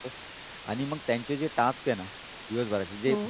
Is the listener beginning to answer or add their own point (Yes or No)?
No